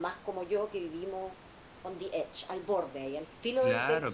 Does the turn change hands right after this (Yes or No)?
Yes